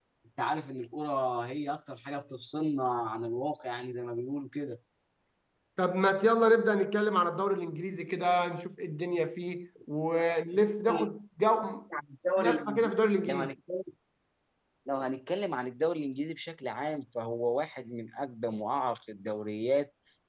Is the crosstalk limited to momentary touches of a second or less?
Yes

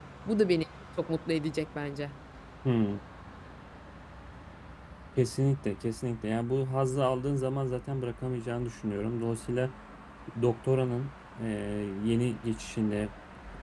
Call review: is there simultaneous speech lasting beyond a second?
No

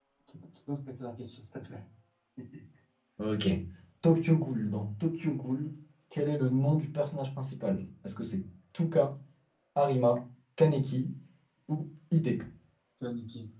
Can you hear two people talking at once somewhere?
No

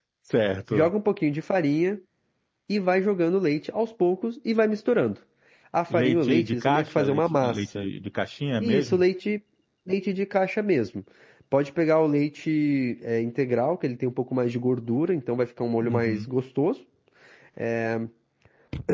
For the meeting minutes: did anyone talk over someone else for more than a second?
Yes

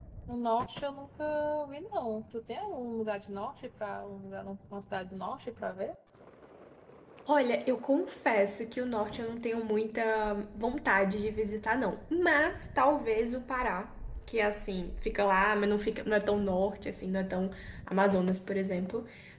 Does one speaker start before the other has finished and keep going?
No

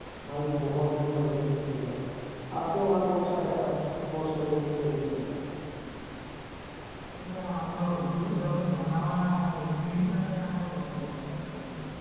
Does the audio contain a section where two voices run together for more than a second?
No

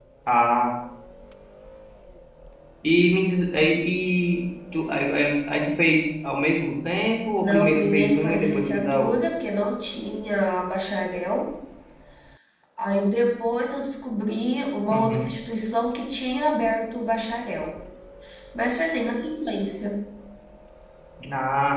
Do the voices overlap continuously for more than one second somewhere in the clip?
Yes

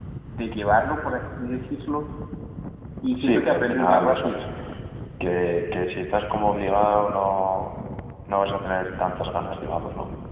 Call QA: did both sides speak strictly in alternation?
No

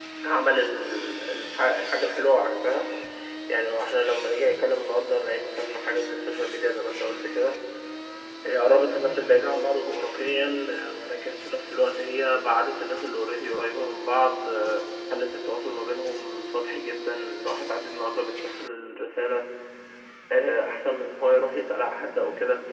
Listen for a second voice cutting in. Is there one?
No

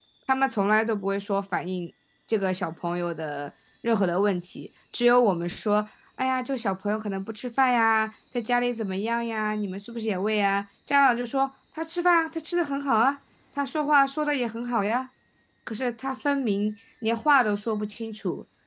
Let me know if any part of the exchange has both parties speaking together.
No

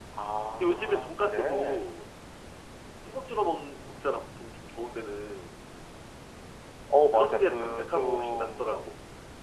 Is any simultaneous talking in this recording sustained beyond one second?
Yes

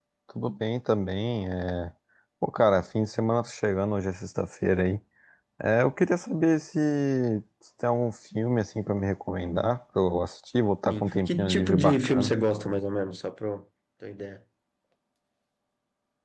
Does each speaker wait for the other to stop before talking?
No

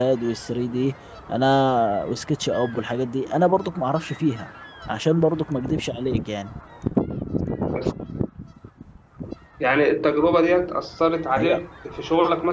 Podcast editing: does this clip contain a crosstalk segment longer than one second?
No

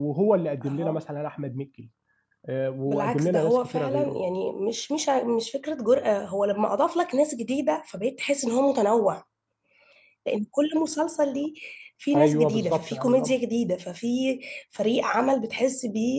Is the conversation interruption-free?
No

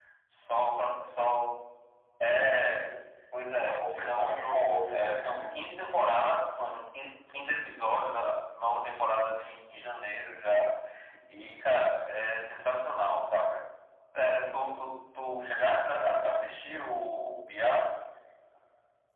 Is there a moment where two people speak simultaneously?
Yes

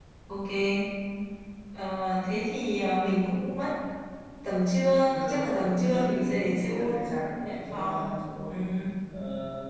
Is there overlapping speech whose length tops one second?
Yes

